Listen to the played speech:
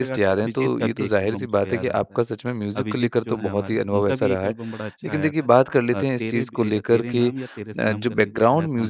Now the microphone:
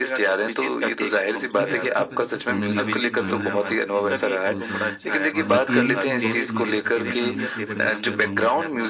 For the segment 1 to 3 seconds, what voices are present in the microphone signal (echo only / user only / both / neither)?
both